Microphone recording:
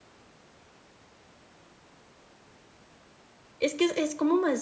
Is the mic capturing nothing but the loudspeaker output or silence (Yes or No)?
No